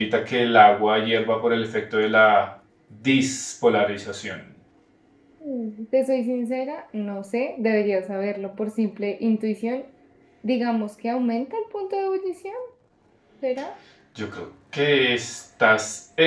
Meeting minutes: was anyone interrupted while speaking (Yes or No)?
No